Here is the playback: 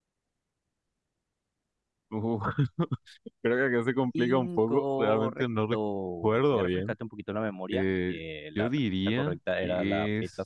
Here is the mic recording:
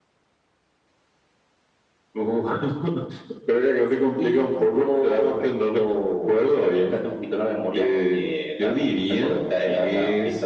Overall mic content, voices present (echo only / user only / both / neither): echo only